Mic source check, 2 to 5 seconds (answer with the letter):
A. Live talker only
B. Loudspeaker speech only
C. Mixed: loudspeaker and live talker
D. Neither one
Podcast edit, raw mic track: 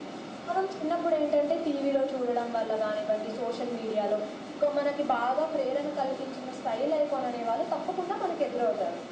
B